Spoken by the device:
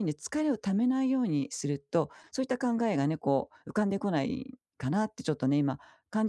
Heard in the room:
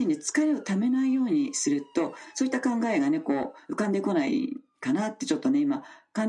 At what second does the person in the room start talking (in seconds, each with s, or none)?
none